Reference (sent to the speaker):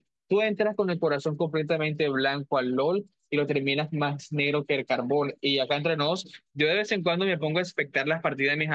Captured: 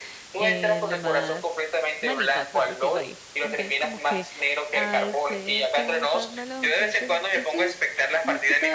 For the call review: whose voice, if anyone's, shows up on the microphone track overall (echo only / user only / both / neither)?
both